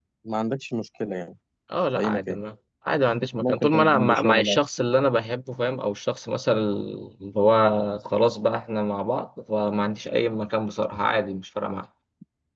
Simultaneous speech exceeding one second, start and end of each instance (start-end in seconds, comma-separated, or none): 3.4-4.6